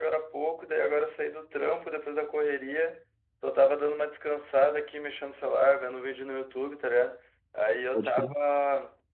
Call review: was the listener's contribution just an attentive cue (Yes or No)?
Yes